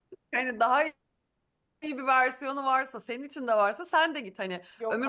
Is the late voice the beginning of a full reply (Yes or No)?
No